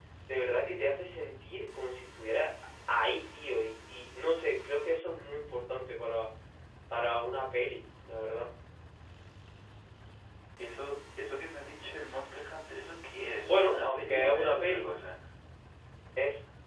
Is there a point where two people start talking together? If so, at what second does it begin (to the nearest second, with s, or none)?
13 s